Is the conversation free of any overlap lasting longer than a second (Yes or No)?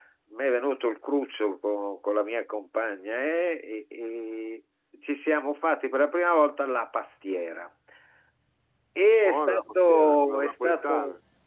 No